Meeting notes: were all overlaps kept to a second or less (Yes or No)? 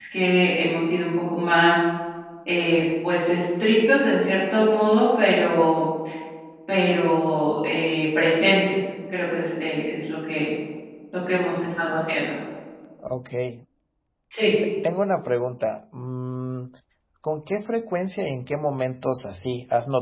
Yes